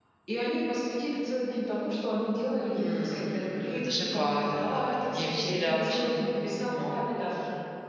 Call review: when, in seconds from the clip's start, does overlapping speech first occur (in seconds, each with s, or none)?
2.8 s